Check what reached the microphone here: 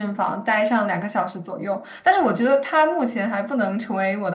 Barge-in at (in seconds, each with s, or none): none